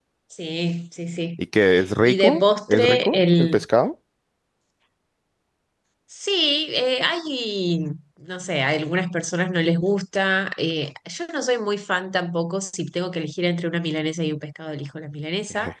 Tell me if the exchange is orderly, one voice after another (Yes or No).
No